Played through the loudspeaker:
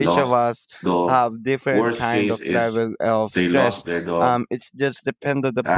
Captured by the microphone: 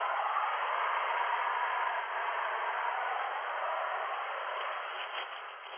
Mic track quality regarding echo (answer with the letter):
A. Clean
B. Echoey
A